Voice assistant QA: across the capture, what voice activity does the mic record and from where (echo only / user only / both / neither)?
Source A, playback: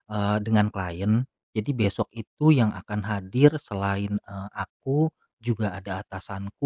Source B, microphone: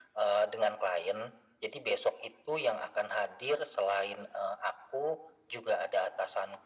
echo only